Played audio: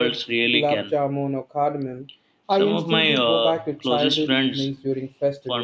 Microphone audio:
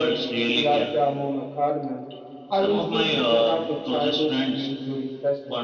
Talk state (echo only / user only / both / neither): echo only